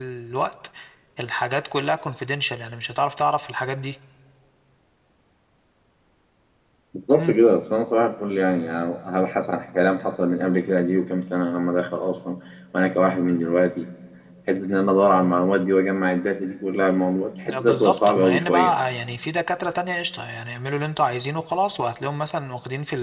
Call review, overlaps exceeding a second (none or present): present